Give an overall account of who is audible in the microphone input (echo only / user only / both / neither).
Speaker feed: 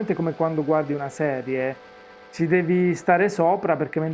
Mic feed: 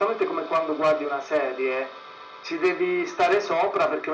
echo only